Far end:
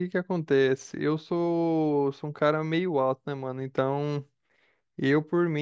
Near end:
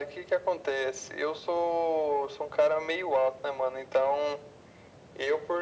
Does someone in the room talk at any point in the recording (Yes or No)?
No